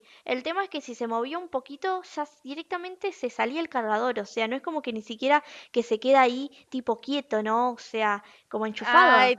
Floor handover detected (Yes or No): Yes